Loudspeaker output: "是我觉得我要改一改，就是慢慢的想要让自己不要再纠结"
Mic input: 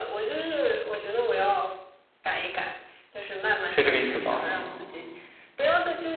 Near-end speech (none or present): present